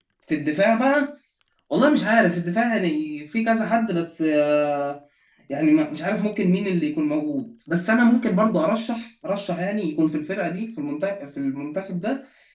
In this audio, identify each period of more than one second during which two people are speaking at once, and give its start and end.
none

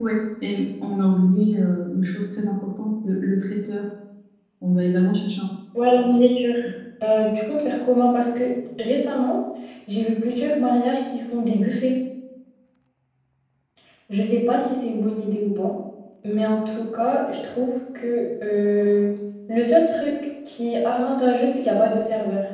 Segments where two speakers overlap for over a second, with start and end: none

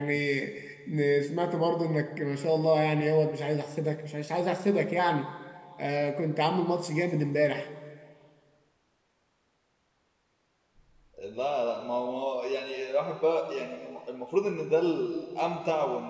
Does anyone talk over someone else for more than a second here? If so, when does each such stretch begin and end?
none

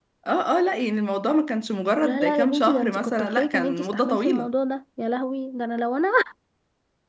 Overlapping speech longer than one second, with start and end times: 2.0-4.5

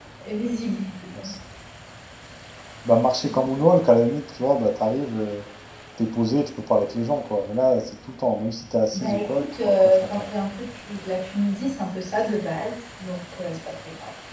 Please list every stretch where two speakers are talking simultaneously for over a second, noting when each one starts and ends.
8.9-10.3

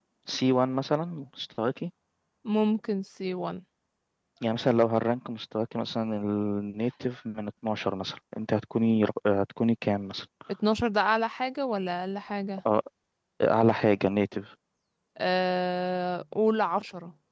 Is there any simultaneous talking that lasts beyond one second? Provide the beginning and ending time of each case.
none

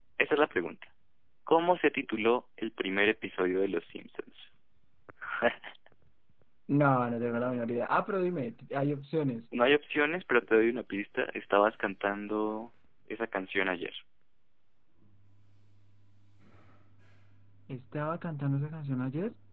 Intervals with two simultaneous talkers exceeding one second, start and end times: none

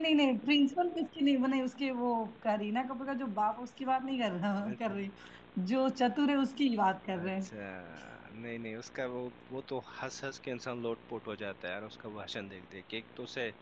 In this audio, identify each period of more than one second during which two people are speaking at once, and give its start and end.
none

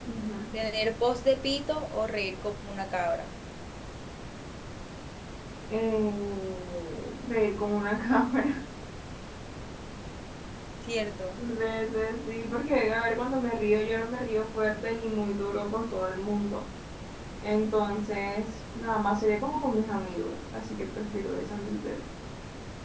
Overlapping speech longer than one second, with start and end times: none

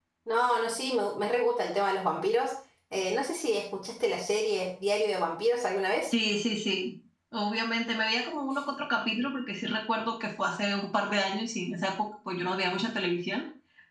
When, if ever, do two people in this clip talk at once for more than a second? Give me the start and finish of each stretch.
none

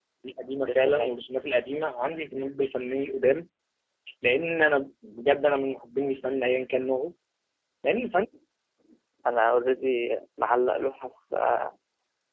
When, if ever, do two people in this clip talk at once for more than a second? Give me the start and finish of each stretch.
none

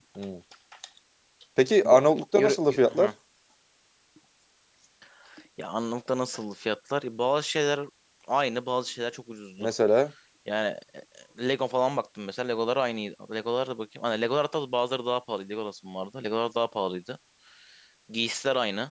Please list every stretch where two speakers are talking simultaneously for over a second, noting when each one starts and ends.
1.8-3.1

